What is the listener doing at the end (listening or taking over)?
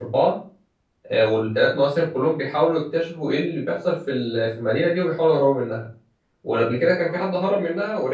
listening